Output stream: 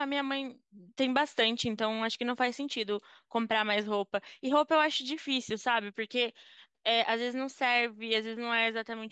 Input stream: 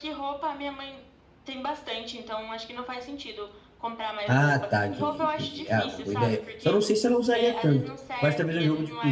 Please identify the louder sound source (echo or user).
user